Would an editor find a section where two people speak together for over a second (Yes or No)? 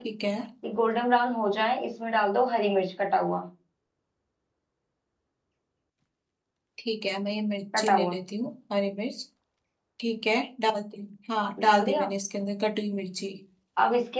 No